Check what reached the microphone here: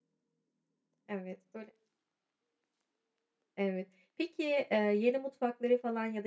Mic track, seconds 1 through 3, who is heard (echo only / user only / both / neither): user only